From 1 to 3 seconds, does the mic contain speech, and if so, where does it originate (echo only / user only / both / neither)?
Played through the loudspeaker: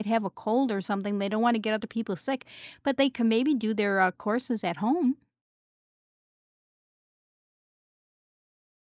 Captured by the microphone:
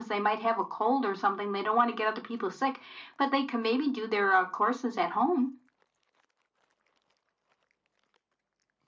echo only